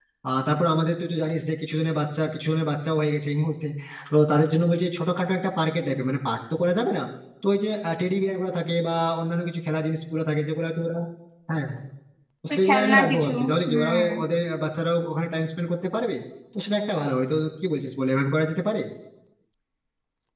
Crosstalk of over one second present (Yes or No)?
Yes